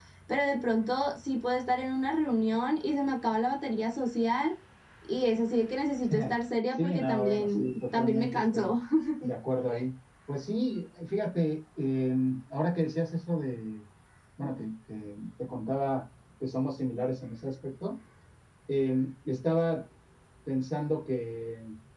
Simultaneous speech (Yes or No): Yes